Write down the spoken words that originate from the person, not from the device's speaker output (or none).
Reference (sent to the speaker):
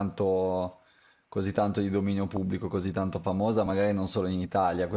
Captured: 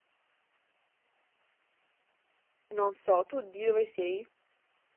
non so, tu di dove sei?